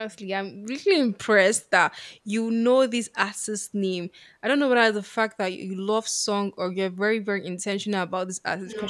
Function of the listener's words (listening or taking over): listening